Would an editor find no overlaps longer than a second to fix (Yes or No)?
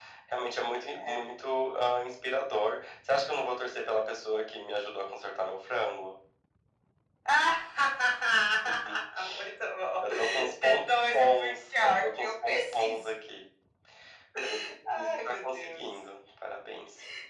No